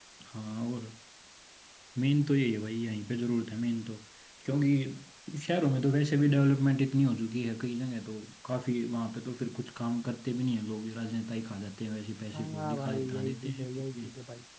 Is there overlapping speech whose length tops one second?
Yes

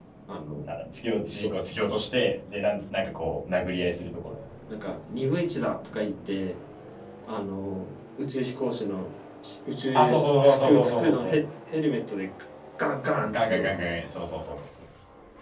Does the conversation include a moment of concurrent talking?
Yes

